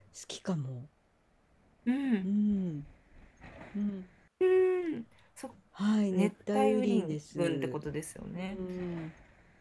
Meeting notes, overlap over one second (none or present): present